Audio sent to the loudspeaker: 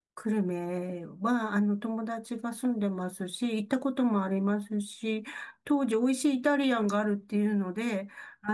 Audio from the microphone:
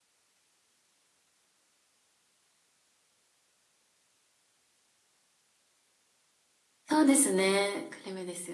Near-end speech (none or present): present